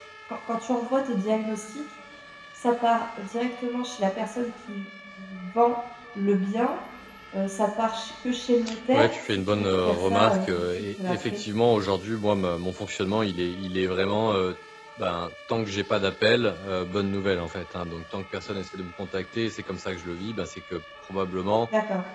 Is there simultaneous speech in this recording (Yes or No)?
Yes